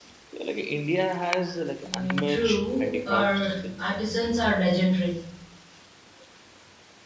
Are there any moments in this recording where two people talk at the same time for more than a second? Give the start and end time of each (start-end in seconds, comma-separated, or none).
1.8-3.9